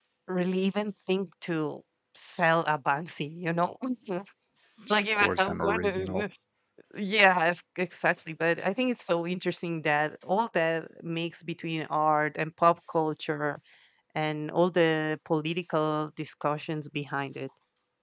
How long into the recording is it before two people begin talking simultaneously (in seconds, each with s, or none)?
4.9 s